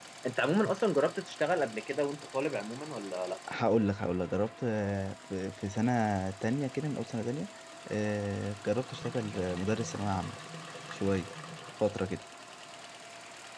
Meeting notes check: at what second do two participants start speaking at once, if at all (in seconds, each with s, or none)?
none